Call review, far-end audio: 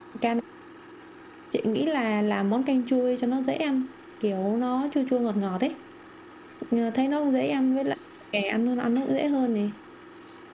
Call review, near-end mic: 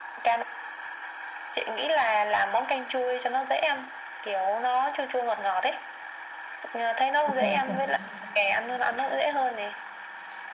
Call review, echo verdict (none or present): present